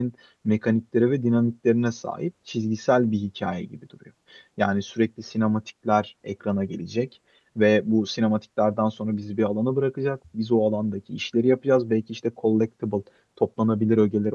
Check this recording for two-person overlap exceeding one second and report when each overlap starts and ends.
none

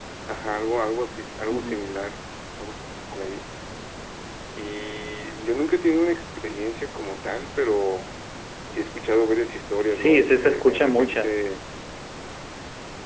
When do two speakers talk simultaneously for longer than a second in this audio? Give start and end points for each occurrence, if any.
9.9-11.4

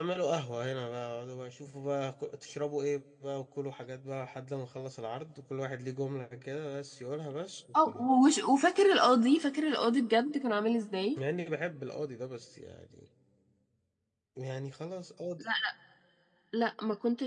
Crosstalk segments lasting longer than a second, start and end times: none

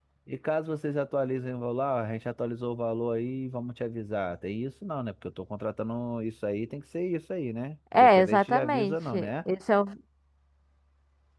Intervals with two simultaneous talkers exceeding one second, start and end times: 7.9-9.3

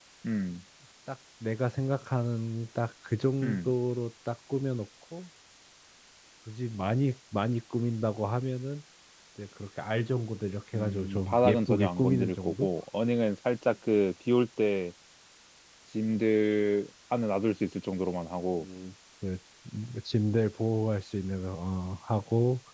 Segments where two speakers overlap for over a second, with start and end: 10.7-12.7

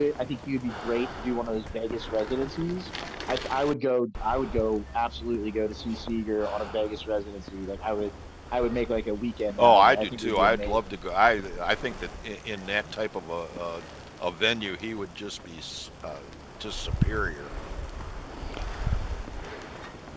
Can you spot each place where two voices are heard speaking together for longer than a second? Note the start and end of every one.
9.6-11.0

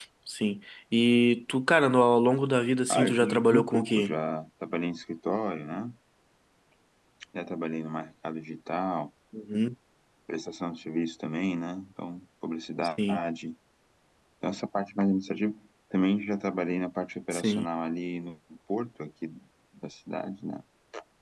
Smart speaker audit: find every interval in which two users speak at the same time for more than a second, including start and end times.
2.9-4.1

